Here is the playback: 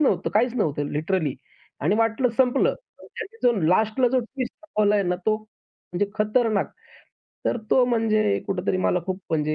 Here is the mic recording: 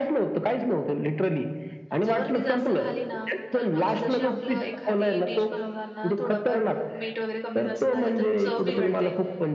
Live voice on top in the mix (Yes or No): No